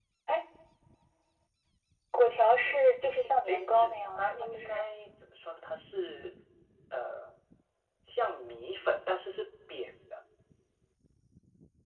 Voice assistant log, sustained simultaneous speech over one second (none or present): present